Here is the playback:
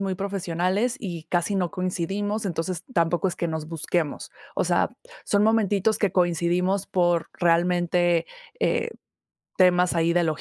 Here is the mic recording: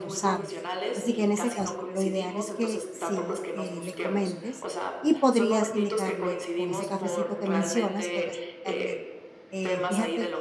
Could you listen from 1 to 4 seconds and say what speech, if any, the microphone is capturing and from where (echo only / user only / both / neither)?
both